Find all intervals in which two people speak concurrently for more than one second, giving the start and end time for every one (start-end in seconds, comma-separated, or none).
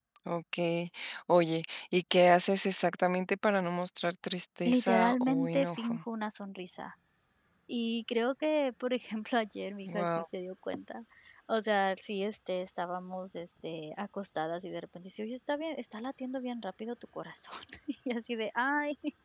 4.7-6.0